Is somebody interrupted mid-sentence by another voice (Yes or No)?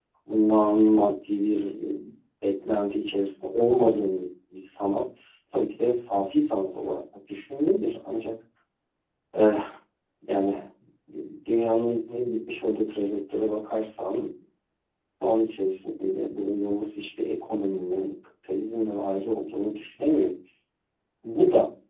No